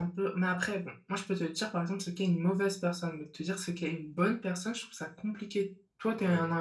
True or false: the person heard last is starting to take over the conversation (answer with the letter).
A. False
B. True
A